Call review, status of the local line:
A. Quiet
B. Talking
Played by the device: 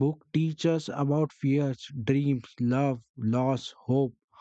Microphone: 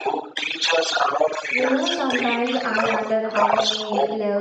B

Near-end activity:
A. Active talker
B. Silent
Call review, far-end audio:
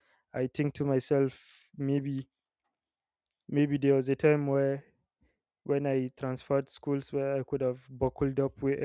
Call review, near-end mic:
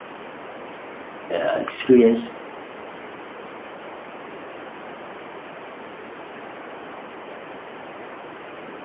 A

